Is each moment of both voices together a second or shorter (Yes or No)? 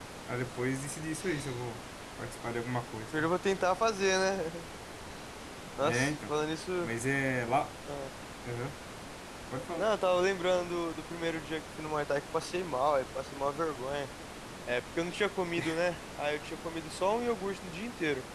Yes